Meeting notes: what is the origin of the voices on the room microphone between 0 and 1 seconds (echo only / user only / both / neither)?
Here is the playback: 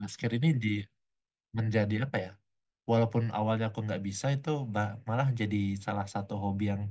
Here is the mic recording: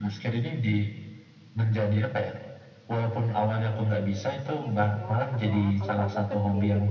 echo only